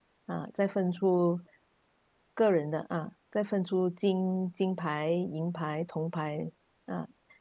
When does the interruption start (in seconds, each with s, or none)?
none